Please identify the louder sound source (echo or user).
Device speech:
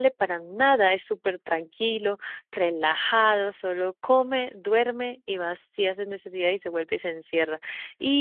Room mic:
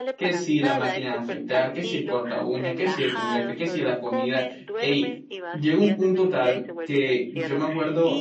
user